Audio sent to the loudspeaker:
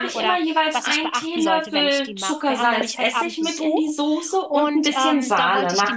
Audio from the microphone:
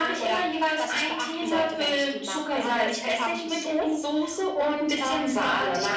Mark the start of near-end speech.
none

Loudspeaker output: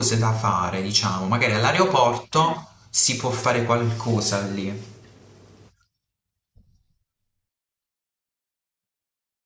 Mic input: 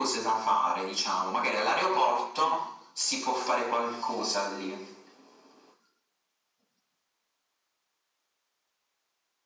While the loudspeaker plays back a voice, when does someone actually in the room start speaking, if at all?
none

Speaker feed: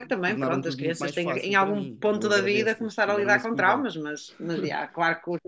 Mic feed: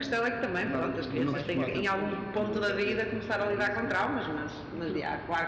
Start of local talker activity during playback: 1.1 s

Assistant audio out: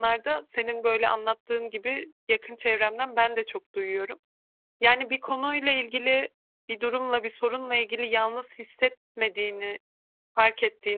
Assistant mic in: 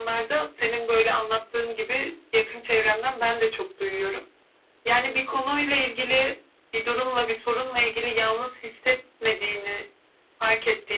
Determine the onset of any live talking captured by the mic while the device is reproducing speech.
none

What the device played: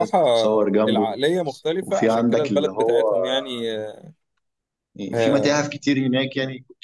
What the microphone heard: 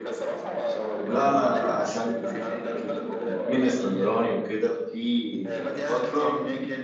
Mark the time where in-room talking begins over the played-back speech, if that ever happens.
1.0 s

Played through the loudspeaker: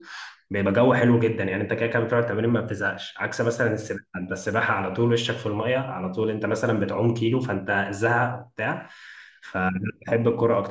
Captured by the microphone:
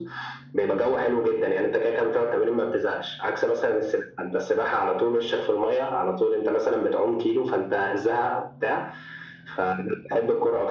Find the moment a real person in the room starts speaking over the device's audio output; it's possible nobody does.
none

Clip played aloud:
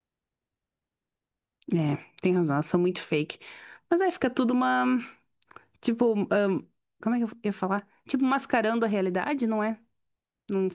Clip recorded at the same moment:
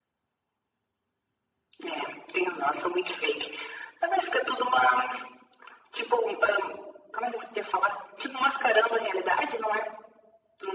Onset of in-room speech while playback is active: none

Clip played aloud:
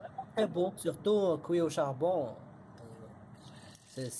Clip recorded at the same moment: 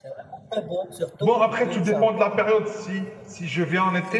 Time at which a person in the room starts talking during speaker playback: 1.2 s

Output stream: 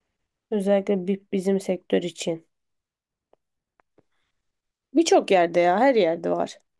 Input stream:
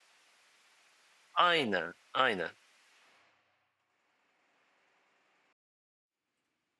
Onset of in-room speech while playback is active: 1.3 s

